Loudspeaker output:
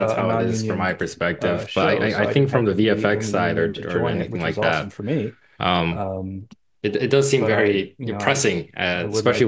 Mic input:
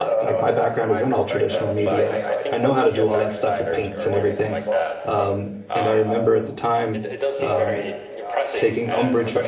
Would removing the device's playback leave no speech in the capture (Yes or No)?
No